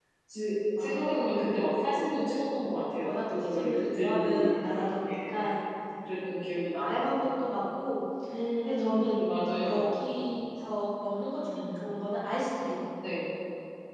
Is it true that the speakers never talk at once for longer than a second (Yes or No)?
No